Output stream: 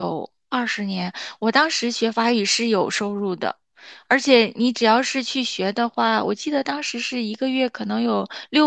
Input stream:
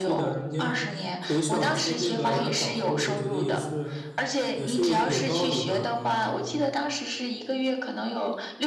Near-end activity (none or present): present